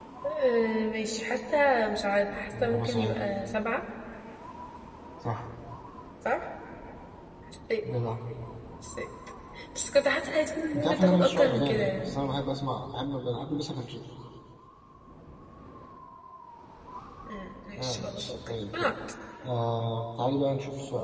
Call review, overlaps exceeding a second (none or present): present